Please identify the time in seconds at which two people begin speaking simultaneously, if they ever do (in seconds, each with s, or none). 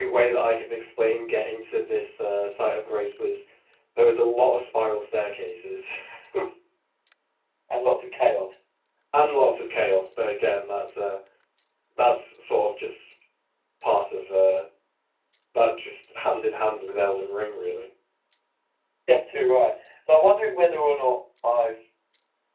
none